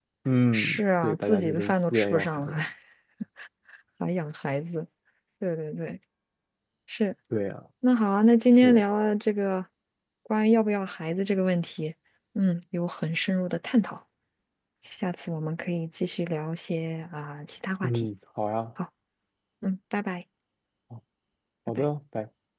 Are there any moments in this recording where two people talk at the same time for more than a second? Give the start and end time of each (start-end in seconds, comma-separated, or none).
0.5-2.6